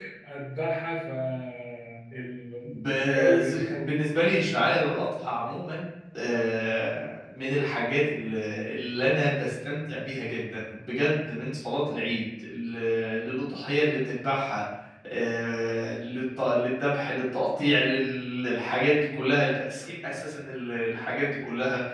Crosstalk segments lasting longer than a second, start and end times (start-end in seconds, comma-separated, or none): 2.6-3.9